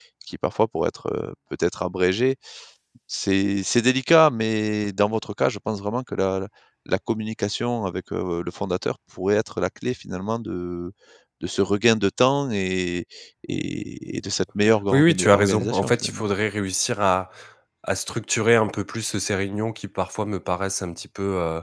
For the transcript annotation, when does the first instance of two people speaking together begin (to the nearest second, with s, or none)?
15 s